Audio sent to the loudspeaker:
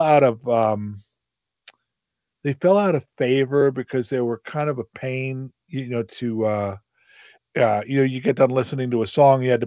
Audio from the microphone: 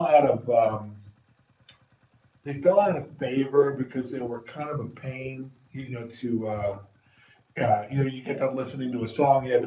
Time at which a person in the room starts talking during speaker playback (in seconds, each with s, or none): none